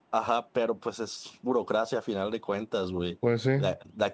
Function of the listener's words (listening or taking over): listening